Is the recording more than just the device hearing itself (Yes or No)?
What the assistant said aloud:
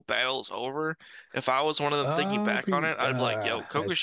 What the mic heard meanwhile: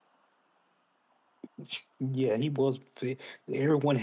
Yes